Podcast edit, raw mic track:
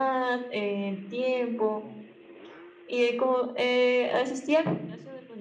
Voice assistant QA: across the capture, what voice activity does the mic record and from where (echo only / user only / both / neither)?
echo only